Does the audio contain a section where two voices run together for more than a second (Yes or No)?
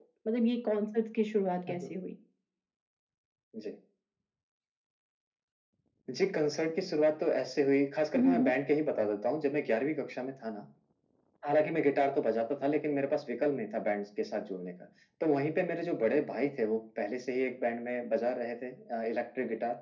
No